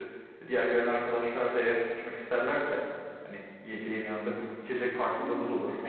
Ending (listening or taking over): taking over